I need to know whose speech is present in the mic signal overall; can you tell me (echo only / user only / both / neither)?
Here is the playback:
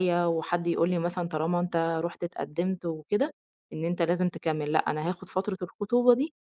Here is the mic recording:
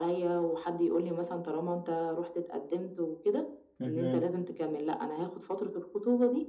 both